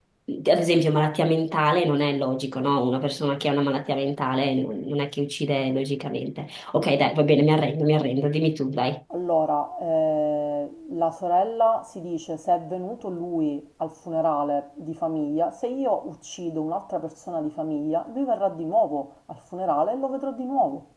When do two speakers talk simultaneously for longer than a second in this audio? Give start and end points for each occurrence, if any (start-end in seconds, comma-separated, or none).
none